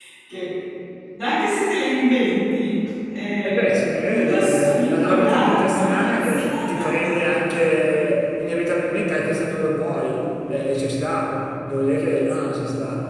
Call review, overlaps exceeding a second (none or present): present